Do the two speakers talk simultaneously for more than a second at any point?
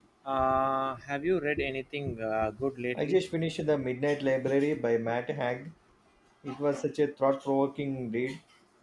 No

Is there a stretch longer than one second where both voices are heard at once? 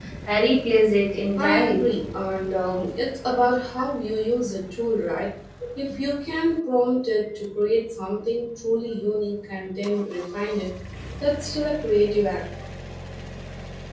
No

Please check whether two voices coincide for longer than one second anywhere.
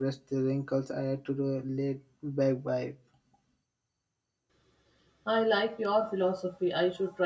No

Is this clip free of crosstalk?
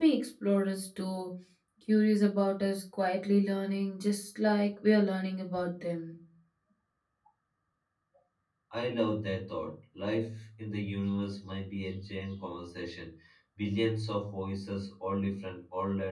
Yes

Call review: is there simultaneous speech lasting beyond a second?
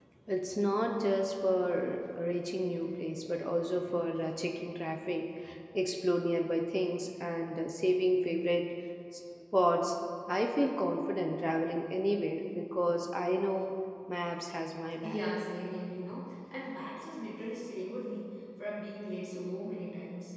No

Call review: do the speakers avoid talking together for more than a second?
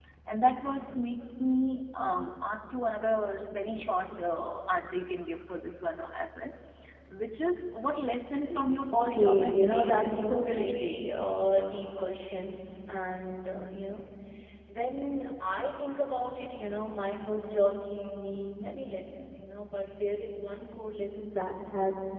No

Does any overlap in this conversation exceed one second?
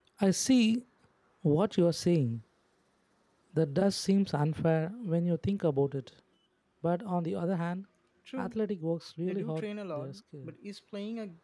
Yes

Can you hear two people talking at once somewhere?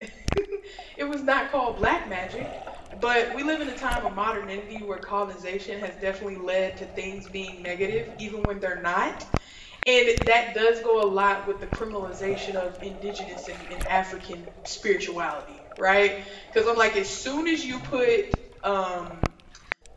No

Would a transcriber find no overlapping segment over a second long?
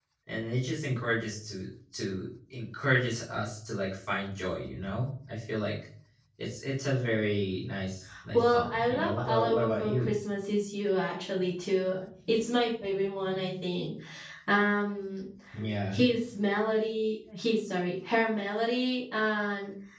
No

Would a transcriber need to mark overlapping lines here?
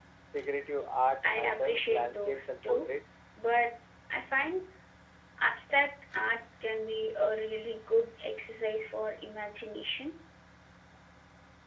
Yes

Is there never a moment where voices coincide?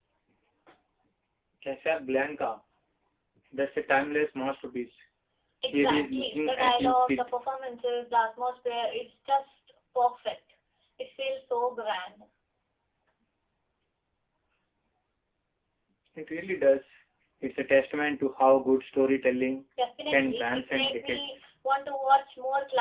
No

